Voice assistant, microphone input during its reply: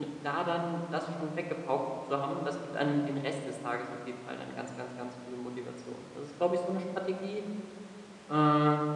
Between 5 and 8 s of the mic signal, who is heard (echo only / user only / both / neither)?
user only